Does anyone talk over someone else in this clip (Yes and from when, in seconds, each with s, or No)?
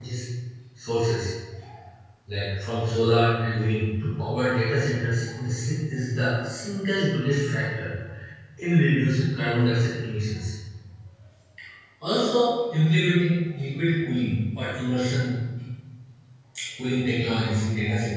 No